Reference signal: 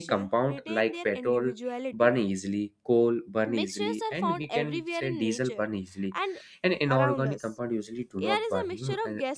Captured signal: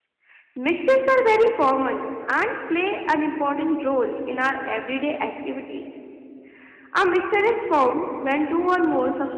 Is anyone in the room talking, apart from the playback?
Yes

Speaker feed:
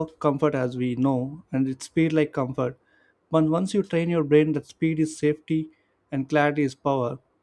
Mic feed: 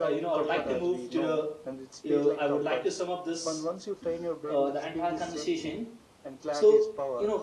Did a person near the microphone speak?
Yes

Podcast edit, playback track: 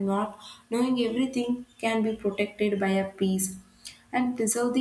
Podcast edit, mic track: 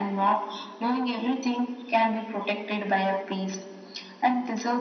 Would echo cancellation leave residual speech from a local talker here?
No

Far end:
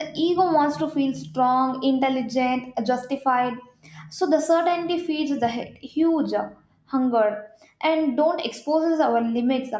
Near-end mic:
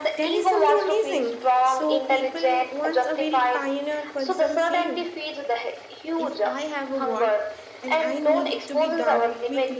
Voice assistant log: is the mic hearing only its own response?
No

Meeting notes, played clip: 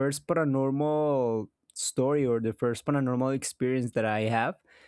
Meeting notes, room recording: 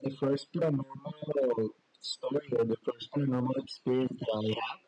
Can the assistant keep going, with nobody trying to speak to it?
Yes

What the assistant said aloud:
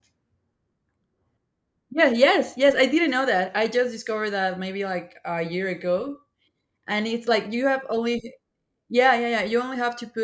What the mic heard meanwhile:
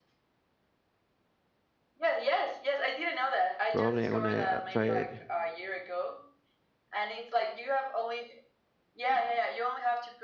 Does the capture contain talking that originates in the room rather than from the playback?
Yes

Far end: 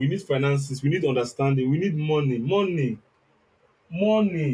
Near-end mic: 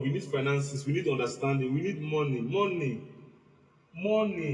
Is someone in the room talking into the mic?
No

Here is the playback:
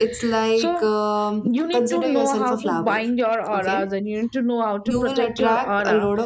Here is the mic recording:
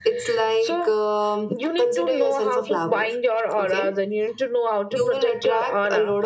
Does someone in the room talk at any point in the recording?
No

